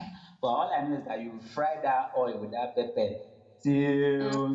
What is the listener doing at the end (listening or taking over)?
listening